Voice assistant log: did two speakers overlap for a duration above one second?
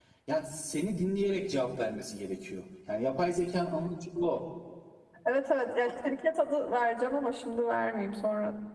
No

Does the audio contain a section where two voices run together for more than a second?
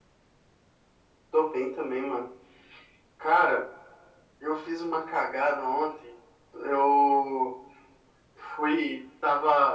No

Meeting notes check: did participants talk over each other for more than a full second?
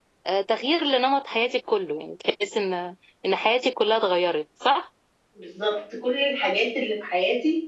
No

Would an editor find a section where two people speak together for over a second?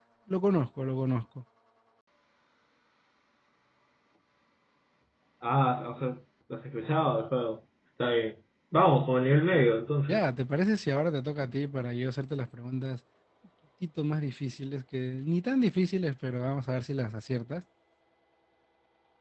No

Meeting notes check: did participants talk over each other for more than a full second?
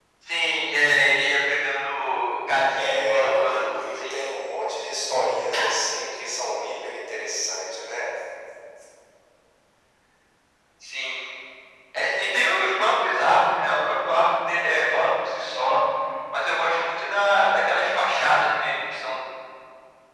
Yes, from 2.8 s

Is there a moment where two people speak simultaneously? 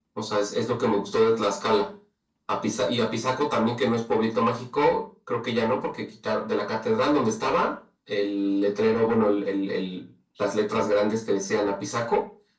No

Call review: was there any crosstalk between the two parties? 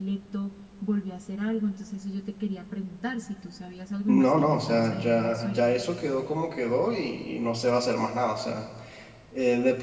Yes, from 4.1 s

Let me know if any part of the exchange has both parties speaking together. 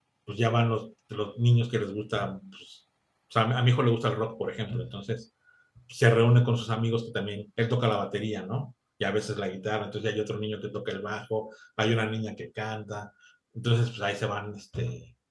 No

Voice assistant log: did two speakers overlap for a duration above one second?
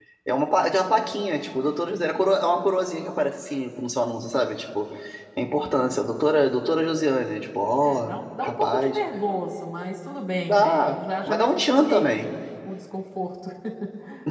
Yes, from 7.8 s

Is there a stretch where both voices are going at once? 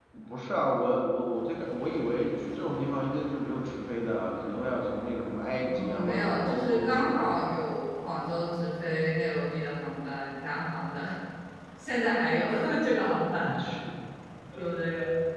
Yes, from 5.7 s

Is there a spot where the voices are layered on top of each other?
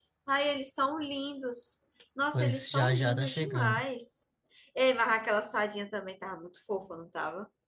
Yes, from 2.3 s

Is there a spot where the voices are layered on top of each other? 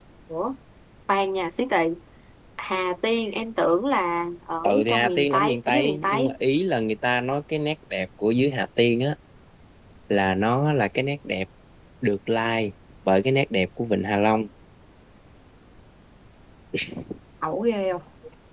Yes, from 4.6 s

